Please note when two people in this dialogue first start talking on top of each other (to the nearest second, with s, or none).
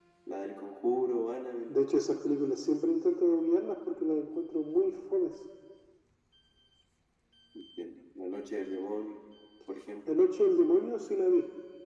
none